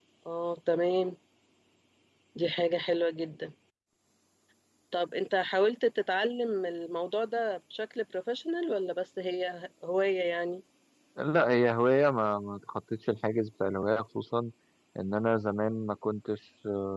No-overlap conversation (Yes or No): Yes